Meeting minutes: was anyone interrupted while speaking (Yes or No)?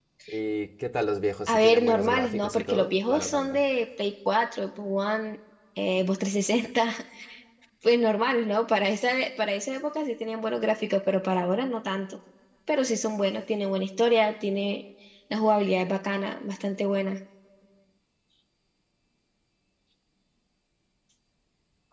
Yes